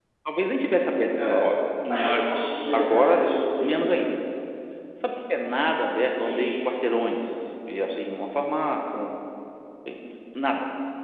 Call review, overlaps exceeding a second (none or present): none